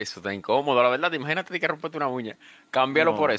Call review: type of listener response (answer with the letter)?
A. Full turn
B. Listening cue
B